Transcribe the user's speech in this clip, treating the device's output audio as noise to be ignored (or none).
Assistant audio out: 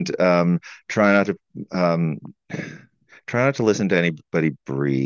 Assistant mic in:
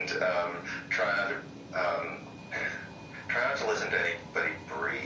none